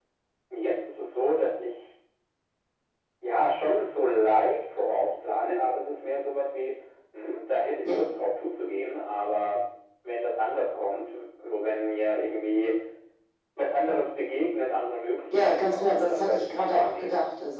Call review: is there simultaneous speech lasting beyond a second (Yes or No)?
Yes